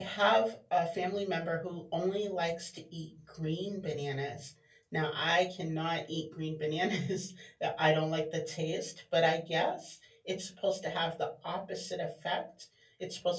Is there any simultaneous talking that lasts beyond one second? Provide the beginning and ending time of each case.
none

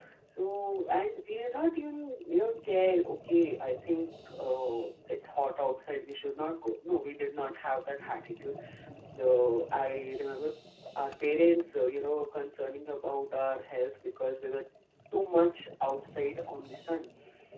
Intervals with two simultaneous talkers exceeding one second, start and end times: none

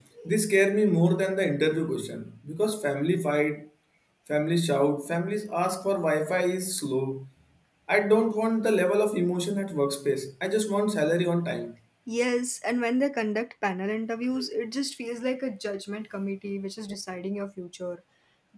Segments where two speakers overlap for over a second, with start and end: none

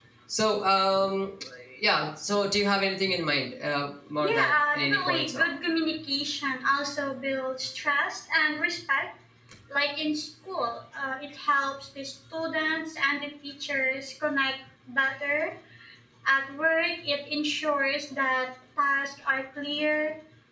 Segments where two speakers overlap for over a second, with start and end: 4.2-5.5

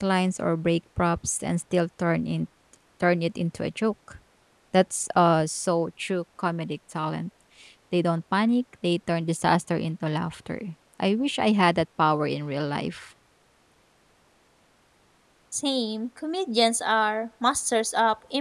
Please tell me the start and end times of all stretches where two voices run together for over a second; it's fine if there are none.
none

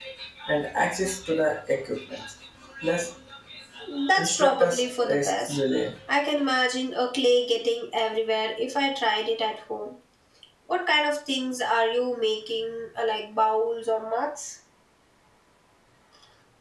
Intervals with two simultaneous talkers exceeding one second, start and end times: 4.2-5.6

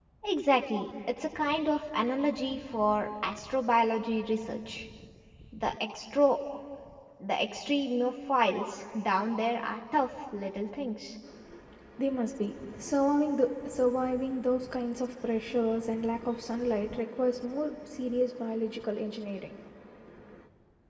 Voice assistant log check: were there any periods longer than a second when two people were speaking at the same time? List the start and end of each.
none

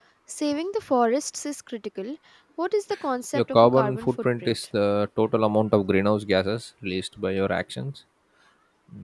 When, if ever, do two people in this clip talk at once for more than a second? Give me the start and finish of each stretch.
3.3-4.6

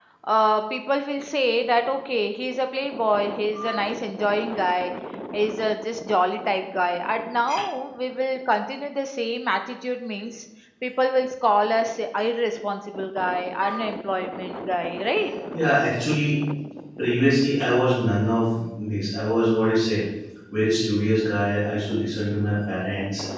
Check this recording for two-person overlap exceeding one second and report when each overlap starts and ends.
none

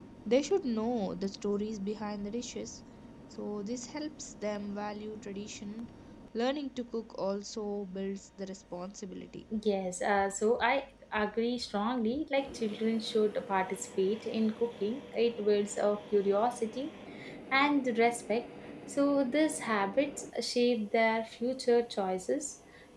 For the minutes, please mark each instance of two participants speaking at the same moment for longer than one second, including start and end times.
none

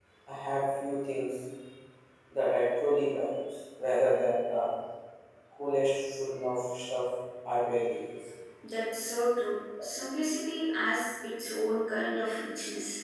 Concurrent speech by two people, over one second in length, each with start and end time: none

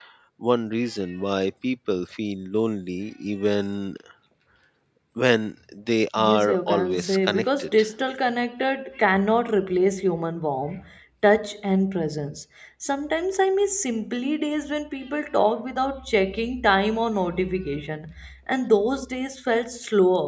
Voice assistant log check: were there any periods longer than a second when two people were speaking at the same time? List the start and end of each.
6.2-7.7

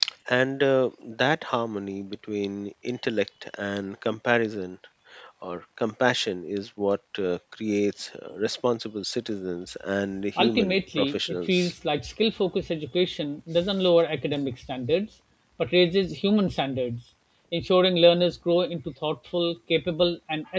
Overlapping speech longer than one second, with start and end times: 10.4-11.7

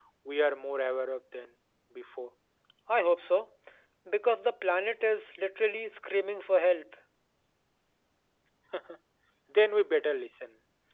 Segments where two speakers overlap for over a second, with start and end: none

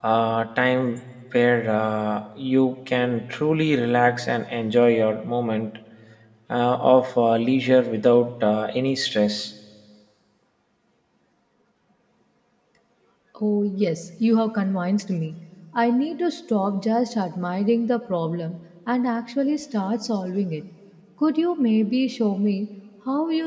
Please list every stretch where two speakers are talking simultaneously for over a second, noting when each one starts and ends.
none

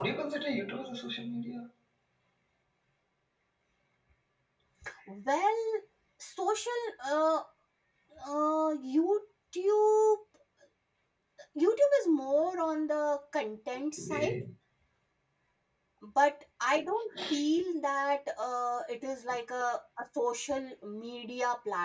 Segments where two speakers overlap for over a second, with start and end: none

